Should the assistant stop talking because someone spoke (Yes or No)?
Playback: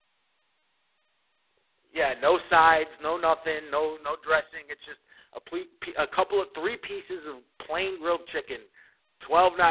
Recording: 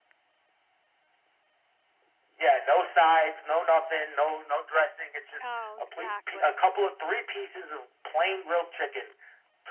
Yes